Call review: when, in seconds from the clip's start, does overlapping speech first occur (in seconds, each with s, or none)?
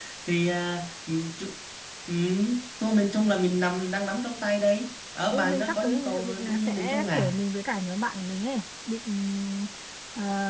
5.3 s